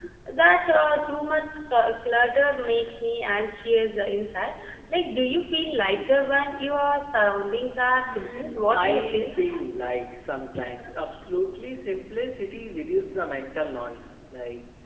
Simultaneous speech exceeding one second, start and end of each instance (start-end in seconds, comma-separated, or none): 8.0-9.3